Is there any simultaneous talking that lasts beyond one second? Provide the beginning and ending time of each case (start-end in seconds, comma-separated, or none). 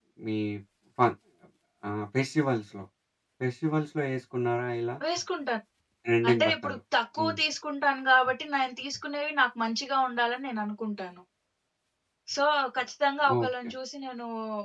none